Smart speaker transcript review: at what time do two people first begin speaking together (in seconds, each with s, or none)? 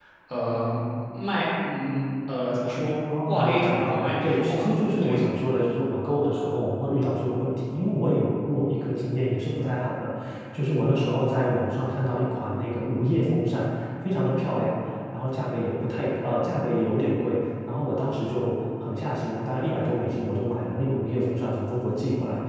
3.1 s